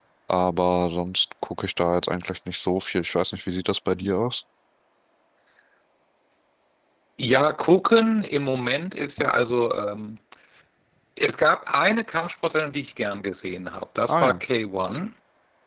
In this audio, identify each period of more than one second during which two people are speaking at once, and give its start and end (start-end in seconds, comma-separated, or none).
none